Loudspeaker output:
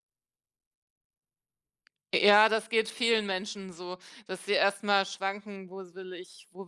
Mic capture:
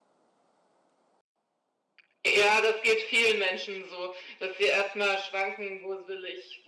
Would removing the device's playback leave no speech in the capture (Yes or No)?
Yes